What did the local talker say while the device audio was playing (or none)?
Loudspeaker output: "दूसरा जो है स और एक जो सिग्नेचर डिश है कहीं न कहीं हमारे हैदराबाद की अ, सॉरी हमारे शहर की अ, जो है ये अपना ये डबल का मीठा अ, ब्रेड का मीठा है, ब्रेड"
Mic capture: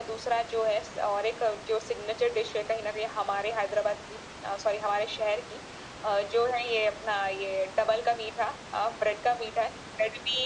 none